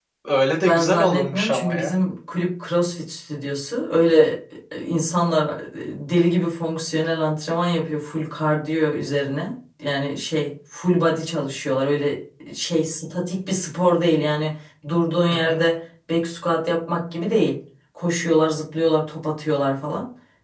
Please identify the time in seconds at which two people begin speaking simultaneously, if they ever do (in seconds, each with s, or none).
0.6 s